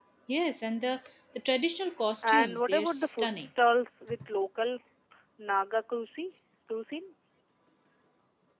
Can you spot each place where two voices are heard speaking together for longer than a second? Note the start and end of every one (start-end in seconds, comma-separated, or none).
2.2-3.5